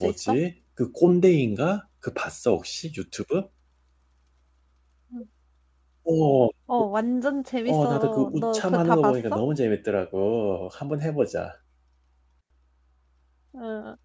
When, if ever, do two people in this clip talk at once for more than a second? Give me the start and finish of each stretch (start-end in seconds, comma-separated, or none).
7.6-9.4